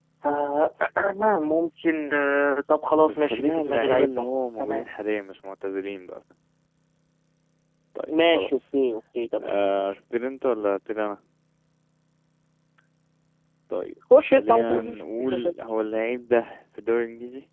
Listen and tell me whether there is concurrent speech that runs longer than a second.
Yes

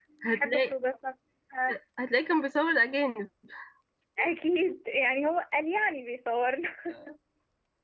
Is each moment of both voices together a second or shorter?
Yes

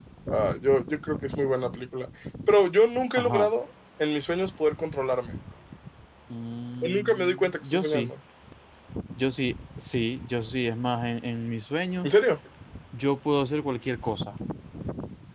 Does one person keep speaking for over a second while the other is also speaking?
Yes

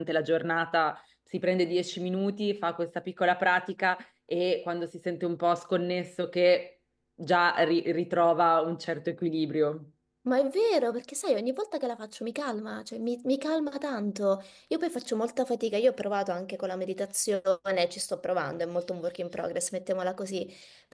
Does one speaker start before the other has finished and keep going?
No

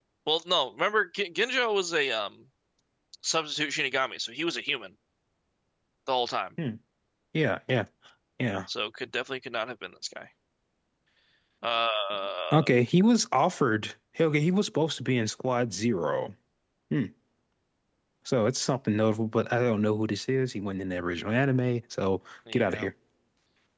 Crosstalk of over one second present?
No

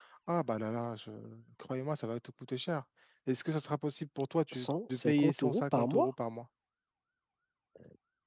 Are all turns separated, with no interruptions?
No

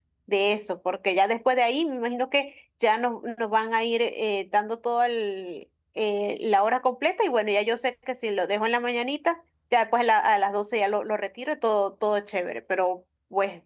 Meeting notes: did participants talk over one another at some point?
No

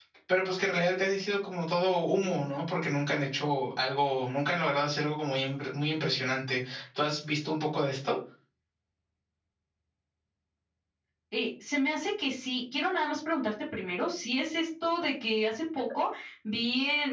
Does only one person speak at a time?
Yes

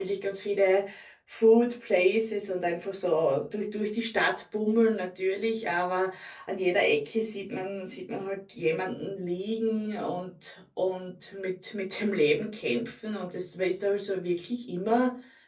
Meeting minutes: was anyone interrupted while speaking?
No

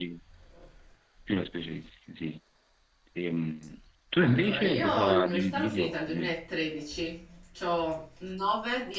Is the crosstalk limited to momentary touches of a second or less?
No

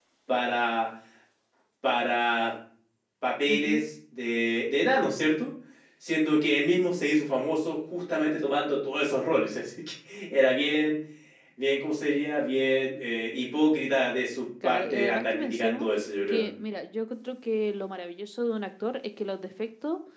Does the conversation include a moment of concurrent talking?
Yes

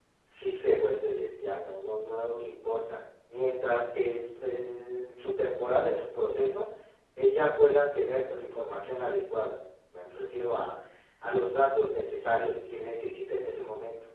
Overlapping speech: No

